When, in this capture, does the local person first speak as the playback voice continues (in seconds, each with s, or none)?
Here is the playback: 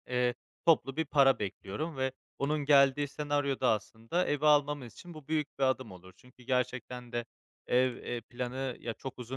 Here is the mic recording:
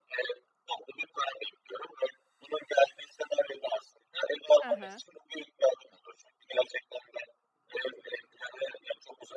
4.6 s